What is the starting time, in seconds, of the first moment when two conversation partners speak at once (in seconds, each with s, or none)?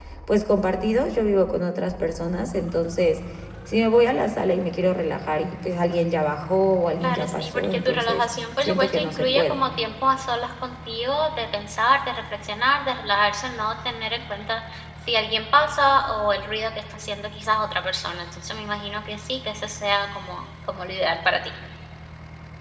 7.0 s